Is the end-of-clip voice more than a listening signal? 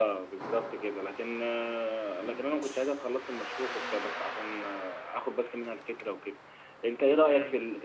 Yes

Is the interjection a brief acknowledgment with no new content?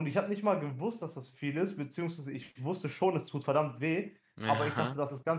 Yes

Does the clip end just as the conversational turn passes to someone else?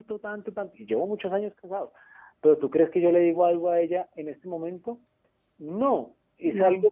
No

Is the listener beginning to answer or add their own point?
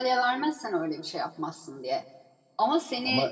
No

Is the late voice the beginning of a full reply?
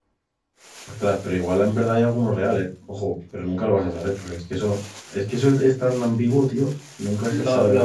Yes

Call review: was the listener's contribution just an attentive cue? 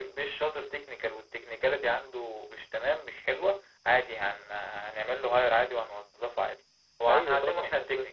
No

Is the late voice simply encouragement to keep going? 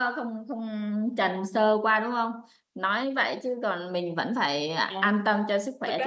No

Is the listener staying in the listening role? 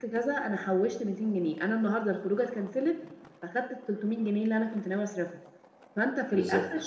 Yes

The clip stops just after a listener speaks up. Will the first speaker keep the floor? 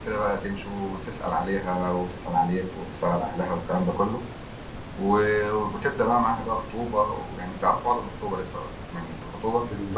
No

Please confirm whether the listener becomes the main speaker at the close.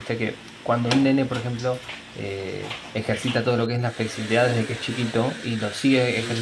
No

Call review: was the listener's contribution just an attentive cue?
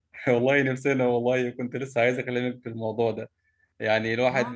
Yes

